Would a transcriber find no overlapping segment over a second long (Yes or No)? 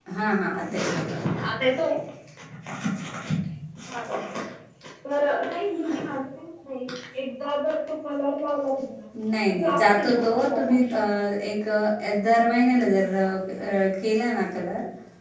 No